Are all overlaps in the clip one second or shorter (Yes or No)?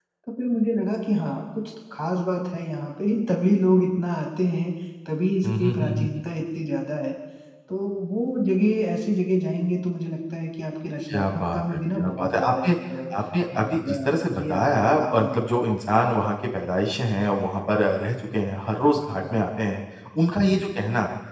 No